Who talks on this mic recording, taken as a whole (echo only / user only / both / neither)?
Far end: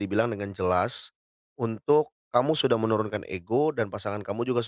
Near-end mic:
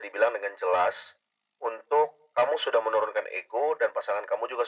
echo only